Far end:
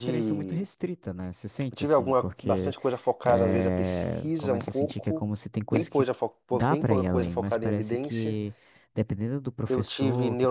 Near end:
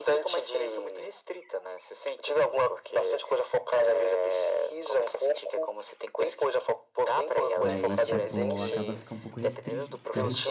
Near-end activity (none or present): present